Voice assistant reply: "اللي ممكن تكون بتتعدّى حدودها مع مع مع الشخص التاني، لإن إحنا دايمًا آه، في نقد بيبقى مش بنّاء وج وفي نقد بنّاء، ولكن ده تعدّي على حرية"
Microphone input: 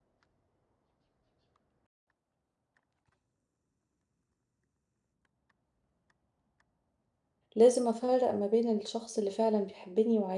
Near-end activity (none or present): present